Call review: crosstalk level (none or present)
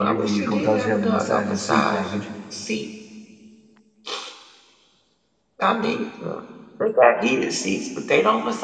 present